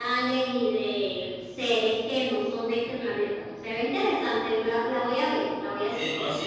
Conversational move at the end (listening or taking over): taking over